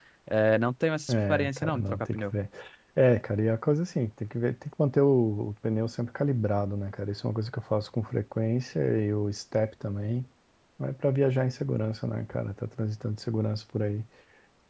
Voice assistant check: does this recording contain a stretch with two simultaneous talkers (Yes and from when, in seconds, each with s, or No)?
Yes, from 1.1 s